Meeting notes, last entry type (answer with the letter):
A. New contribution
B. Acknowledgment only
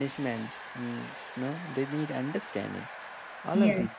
A